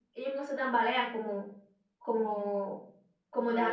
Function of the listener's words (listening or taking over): taking over